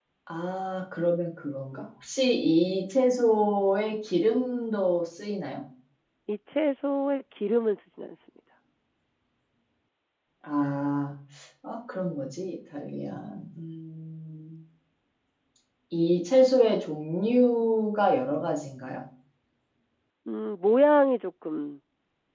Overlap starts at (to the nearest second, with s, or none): none